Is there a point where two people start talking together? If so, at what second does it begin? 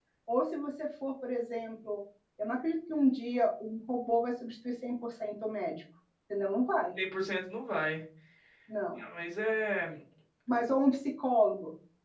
none

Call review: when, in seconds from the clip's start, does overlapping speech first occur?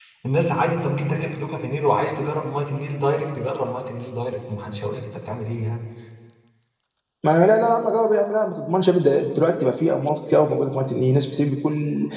none

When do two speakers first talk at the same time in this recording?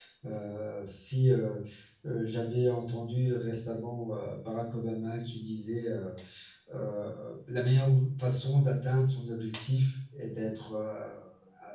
none

